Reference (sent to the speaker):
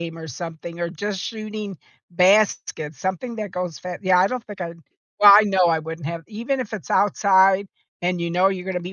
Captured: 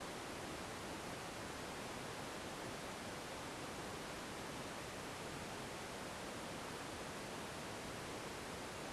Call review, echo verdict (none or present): none